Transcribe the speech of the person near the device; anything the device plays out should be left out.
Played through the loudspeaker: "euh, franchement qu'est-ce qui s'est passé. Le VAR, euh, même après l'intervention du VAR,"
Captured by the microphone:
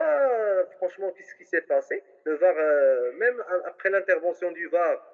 none

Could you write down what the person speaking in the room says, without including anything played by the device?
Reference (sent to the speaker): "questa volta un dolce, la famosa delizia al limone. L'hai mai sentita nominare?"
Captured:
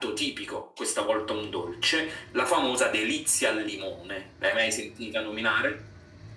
none

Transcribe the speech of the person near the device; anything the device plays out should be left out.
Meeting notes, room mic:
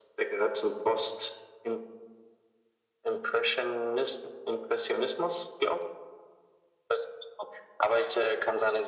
none

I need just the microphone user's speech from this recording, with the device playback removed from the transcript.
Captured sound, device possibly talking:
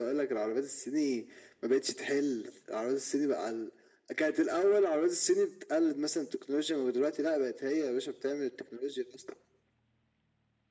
none

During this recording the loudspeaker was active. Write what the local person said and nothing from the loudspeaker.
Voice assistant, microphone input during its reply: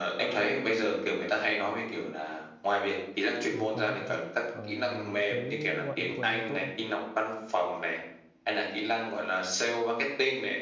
Ừ, quan trọng chứ ờ, thế ngoại ngữ của em có tốt không

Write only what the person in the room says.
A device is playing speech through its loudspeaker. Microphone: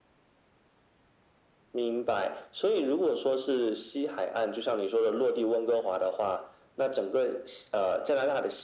none

